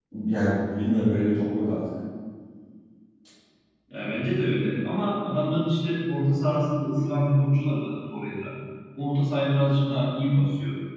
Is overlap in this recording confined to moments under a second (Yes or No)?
Yes